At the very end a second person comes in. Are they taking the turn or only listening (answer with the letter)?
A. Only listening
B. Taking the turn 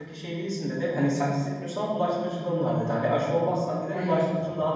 A